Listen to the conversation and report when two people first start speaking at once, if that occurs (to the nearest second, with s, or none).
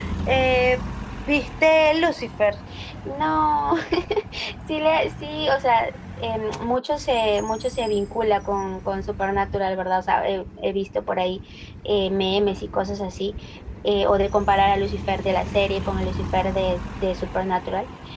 none